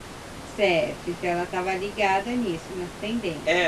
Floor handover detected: Yes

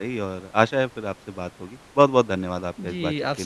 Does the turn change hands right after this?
Yes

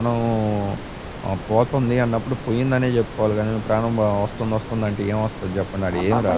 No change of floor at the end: No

